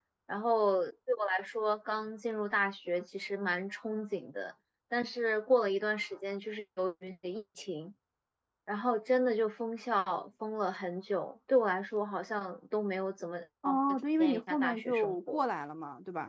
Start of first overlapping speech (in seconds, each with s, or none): 14.2 s